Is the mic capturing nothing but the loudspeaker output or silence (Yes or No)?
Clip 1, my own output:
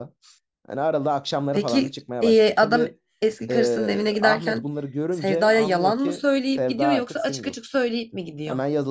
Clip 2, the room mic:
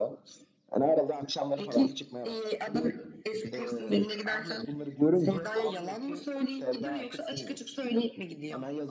Yes